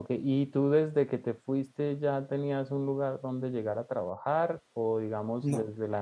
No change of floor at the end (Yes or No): Yes